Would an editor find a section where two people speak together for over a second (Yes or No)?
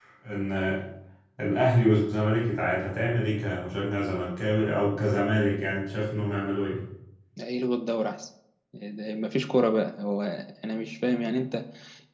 No